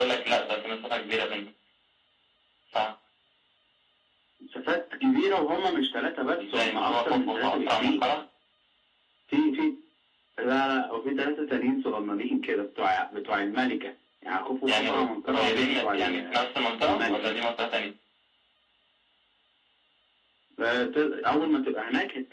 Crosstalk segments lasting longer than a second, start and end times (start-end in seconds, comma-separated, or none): 6.4-8.0, 14.7-16.4